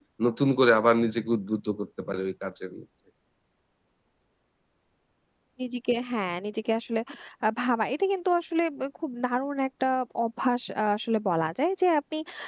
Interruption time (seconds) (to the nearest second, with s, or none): none